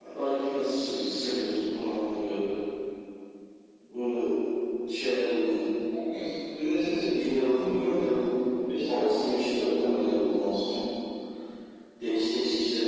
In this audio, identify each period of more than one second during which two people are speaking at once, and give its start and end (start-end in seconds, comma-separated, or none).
8.7-10.0